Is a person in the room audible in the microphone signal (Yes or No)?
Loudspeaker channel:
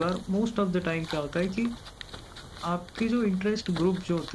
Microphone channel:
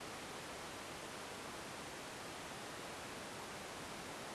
No